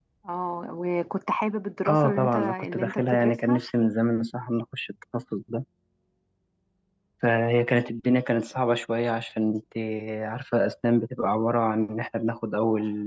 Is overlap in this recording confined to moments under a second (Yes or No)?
No